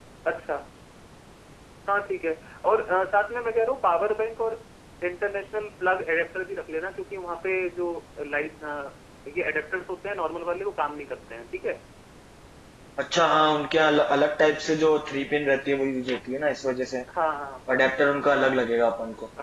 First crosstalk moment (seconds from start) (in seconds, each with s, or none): none